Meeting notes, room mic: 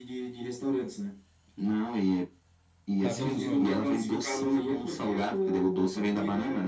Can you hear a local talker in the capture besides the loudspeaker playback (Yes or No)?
Yes